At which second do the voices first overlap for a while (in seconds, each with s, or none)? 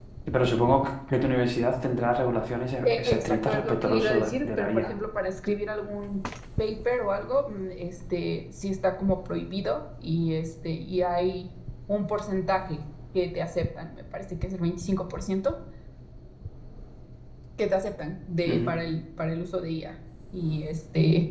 2.8 s